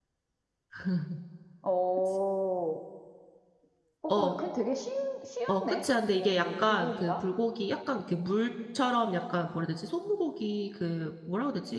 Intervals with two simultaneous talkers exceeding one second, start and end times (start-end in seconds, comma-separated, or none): 5.5-7.1